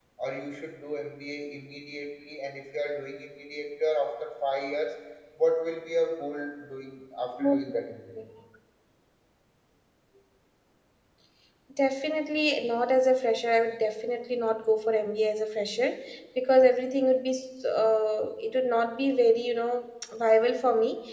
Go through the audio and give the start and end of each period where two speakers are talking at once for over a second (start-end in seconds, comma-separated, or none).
none